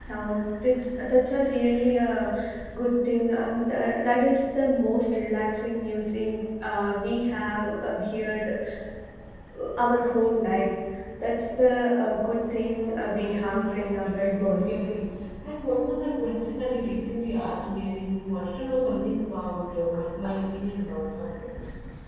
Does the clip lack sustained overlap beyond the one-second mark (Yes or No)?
No